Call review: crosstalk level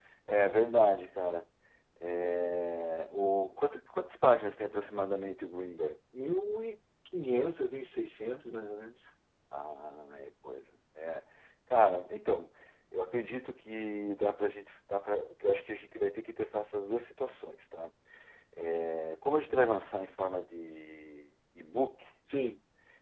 none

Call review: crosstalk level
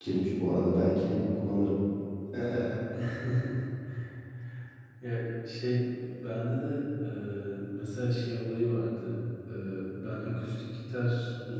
none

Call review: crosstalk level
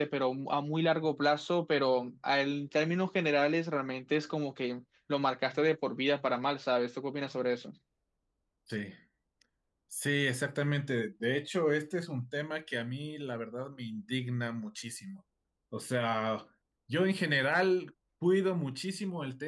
none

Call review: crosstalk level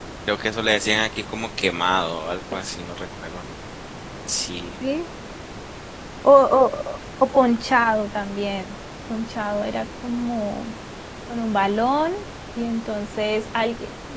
none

